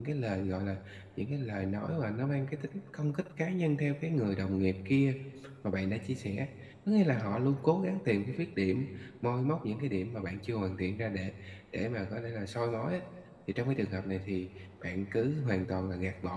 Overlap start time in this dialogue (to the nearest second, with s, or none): none